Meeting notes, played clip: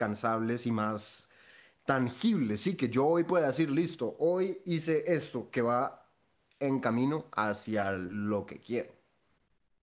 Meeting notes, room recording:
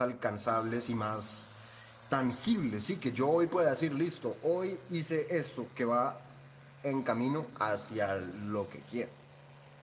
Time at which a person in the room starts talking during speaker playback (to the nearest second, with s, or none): none